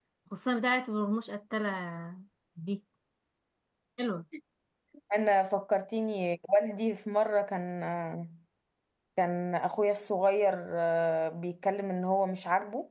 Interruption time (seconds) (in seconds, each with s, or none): none